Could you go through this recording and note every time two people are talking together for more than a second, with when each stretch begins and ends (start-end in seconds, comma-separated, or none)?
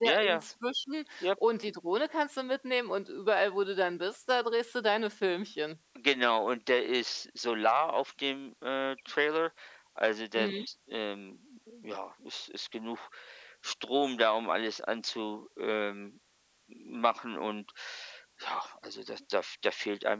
none